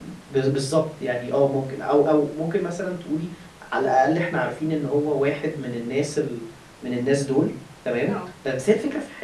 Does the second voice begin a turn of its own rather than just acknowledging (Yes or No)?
No